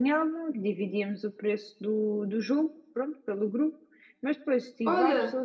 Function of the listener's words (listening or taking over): listening